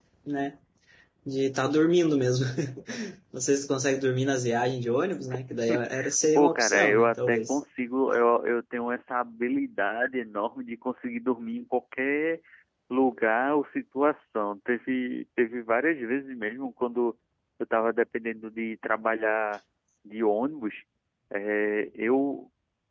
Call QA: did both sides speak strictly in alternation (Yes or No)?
No